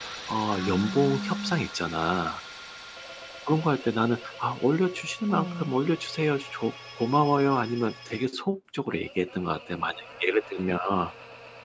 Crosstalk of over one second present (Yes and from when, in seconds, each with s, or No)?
Yes, from 0.5 s